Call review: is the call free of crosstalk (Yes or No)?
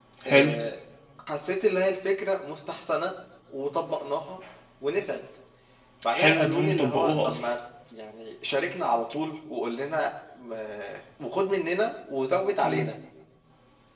No